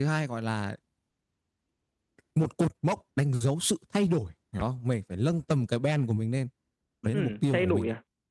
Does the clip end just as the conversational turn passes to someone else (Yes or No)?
Yes